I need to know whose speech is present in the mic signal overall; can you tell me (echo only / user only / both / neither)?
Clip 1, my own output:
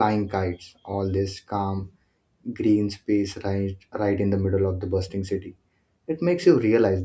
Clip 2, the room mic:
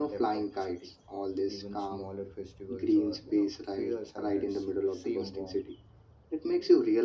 both